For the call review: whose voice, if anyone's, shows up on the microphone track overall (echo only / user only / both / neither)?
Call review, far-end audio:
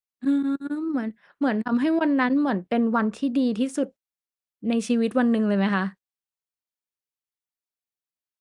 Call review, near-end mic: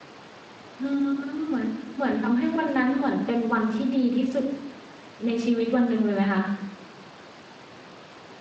echo only